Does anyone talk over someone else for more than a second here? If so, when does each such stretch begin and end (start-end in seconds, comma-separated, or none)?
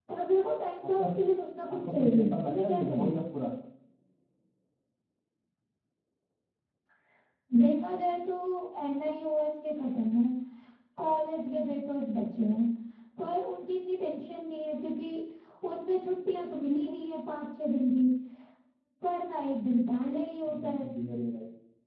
1.7-3.2